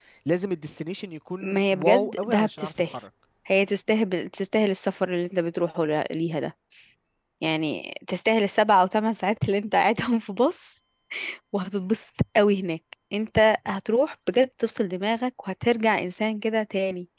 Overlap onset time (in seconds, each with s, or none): 1.4 s